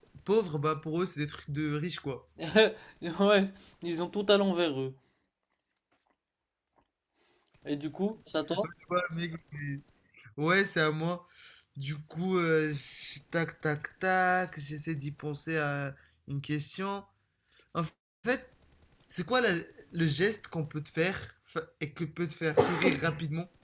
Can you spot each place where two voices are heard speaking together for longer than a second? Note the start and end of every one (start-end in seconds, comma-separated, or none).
none